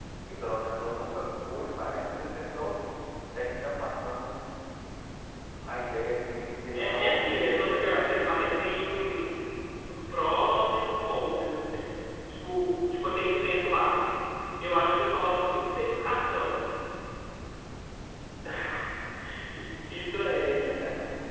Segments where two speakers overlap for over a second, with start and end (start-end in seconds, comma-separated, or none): 6.7-8.6